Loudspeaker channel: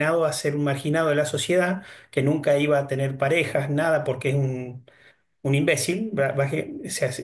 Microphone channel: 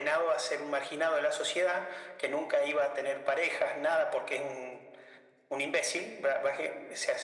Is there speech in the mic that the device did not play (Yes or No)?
No